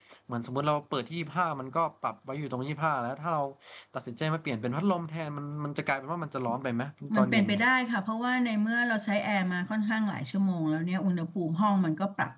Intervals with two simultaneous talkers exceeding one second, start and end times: none

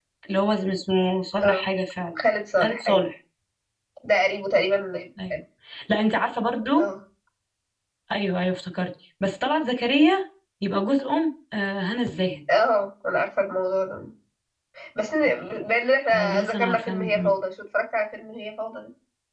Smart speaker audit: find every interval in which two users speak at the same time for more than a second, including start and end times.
16.1-17.3

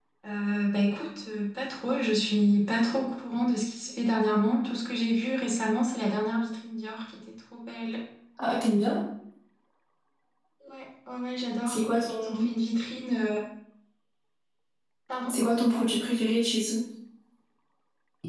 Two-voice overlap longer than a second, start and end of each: none

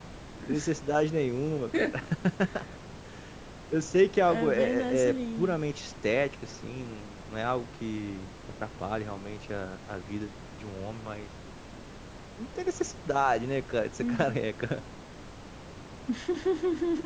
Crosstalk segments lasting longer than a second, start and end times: 4.2-5.6

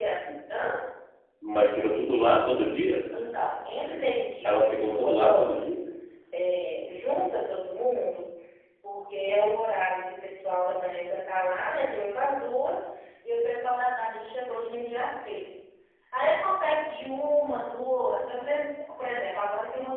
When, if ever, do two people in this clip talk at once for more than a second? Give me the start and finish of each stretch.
4.4-5.8

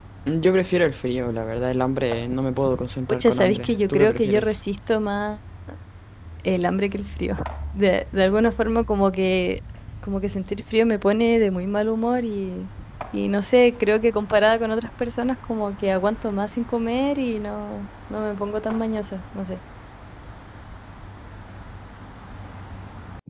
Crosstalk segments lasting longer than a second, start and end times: 3.1-4.6

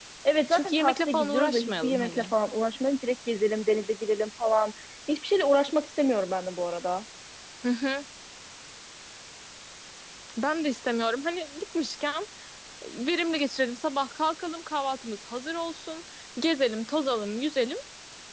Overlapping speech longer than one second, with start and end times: 0.5-2.3

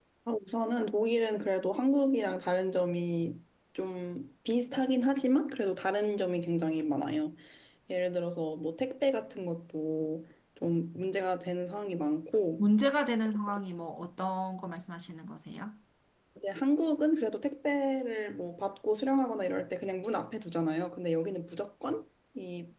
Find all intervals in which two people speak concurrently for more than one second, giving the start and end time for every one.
none

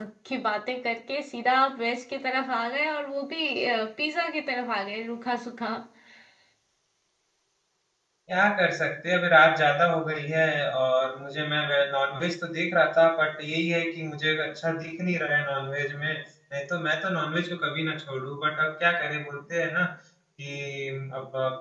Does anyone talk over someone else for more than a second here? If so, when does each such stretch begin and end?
none

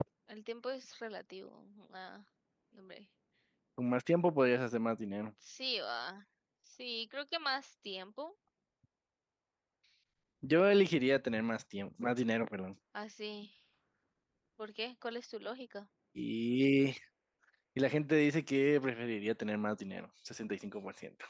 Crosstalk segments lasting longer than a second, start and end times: none

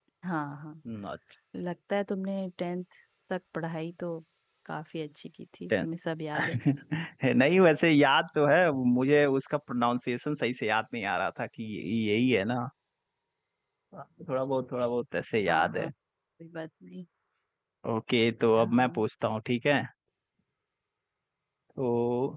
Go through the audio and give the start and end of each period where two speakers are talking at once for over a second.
none

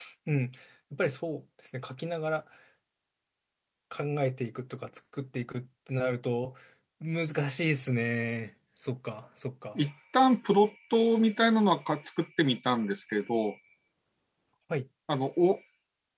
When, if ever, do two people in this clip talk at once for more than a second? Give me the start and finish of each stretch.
none

